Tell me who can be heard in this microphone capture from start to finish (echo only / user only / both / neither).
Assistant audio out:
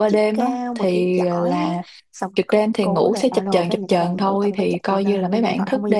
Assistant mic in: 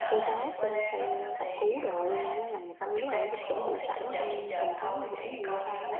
both